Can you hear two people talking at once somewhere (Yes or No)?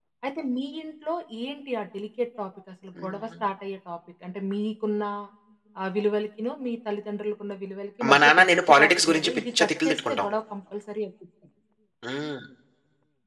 Yes